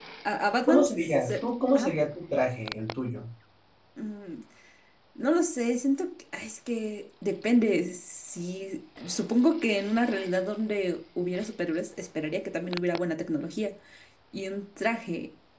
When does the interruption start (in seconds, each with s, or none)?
0.7 s